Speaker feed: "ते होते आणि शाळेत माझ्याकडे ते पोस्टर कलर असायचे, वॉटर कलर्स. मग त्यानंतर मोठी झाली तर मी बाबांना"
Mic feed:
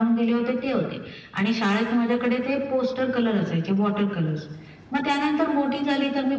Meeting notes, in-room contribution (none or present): none